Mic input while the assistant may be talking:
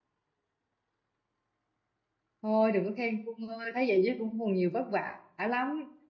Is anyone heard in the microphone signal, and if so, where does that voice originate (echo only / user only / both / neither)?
user only